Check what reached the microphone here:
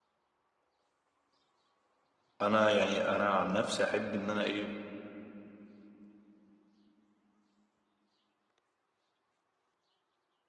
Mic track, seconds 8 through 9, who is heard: neither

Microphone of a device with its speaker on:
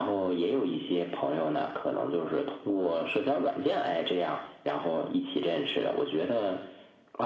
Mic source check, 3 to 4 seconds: echo only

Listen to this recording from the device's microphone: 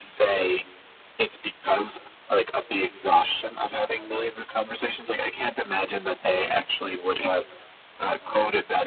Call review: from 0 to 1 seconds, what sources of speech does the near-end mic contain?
echo only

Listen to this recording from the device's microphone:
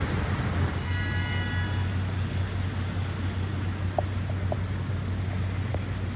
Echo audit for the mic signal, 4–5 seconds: neither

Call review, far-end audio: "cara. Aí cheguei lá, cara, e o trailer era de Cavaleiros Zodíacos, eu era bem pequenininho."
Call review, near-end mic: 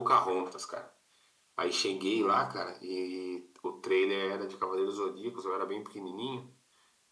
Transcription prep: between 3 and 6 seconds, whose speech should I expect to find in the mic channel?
echo only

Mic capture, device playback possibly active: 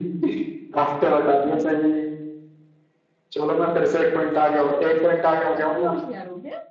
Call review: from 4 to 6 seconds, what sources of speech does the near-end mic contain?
both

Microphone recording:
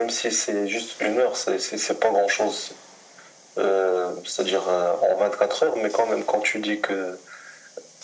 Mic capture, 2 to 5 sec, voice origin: echo only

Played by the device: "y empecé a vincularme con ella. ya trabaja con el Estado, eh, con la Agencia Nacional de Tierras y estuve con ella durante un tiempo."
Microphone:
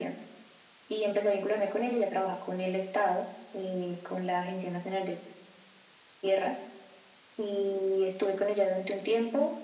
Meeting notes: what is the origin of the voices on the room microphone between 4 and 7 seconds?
echo only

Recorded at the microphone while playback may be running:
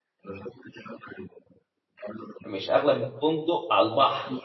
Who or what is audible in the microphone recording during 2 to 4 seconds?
both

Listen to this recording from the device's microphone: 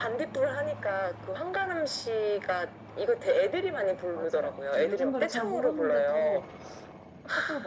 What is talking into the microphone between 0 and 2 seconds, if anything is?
echo only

